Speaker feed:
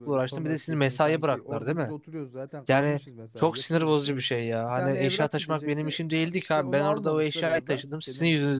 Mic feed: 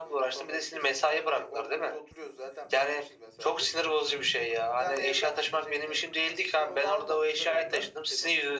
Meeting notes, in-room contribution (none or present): none